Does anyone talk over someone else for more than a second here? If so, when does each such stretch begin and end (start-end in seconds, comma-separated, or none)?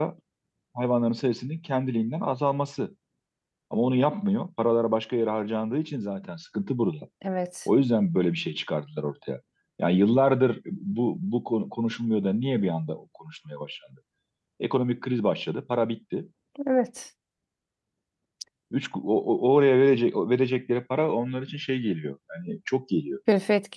none